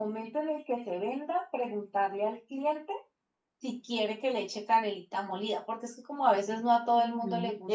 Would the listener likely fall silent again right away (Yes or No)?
No